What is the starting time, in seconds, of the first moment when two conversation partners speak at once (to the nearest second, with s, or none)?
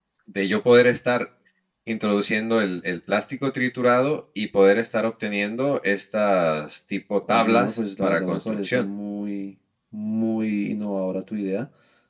7 s